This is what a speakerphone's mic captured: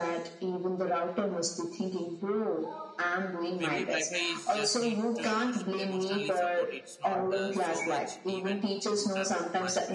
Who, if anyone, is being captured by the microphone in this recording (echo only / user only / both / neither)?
both